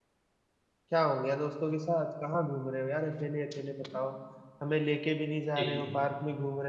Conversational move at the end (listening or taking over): listening